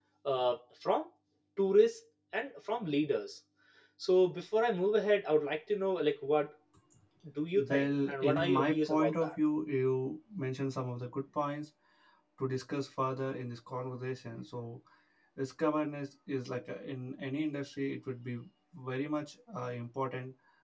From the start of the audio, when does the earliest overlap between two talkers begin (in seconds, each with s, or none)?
7.6 s